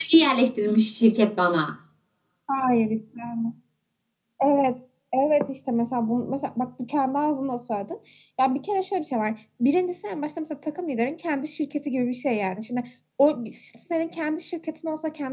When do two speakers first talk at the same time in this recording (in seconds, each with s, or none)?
none